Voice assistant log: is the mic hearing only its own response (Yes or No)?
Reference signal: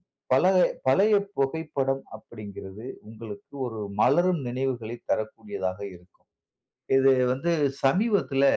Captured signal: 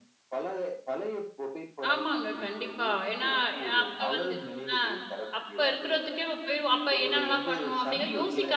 No